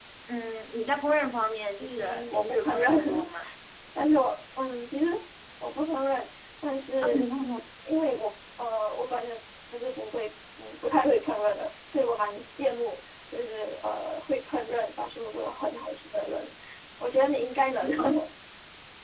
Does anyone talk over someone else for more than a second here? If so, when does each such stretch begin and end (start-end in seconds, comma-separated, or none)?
1.8-3.2